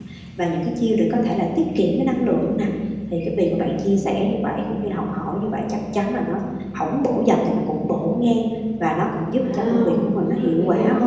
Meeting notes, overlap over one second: present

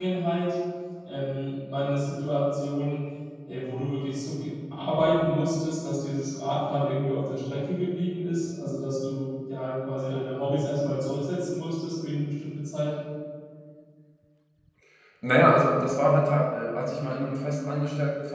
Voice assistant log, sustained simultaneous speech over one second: none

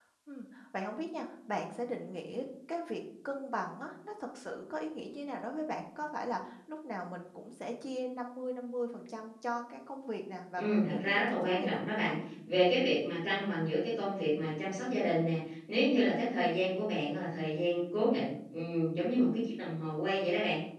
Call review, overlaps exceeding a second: present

